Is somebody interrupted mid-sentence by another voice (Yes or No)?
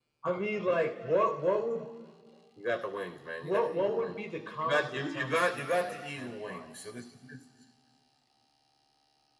Yes